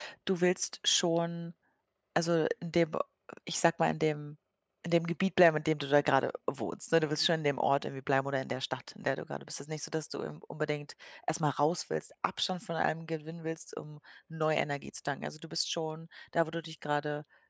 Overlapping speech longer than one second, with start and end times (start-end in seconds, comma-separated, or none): none